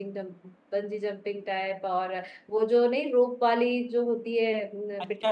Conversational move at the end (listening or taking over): taking over